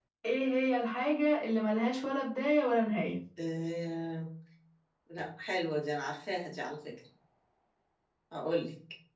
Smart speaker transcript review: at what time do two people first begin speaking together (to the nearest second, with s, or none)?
none